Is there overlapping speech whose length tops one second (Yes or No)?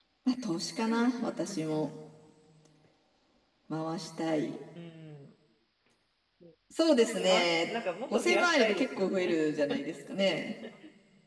Yes